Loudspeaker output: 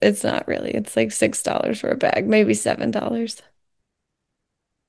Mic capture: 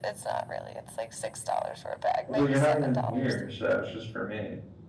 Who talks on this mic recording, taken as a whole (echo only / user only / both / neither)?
both